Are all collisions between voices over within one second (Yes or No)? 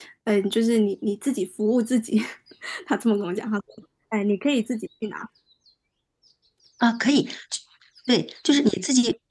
Yes